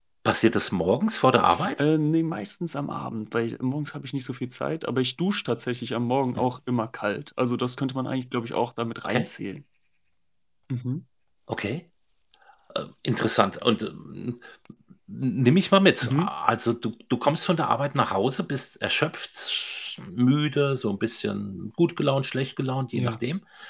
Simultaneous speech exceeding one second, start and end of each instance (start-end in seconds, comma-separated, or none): none